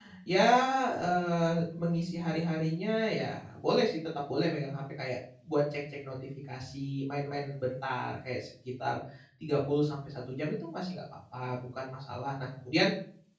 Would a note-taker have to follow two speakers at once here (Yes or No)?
No